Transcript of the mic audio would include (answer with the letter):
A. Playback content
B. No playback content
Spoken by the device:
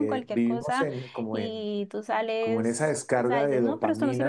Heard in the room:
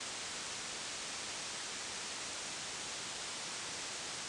B